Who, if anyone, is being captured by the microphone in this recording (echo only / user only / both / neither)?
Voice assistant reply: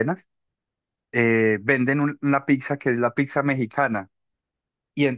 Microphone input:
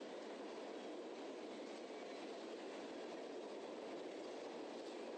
neither